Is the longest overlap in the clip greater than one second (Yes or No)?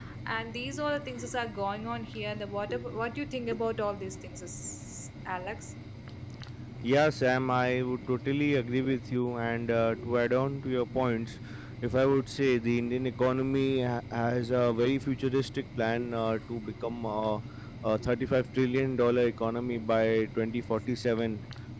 No